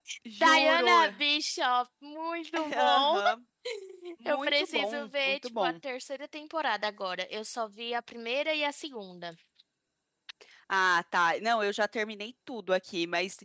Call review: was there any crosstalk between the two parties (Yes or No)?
Yes